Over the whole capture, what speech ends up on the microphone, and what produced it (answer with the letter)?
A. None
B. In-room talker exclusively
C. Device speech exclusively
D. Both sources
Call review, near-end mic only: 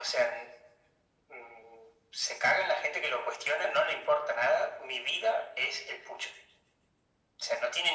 C